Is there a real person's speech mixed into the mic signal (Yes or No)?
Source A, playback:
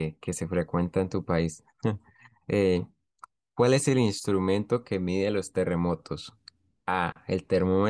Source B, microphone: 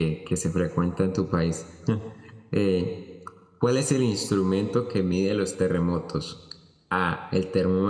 No